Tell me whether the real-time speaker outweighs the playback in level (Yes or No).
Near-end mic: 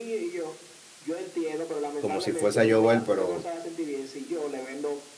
Yes